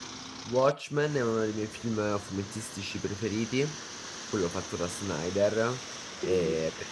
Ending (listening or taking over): listening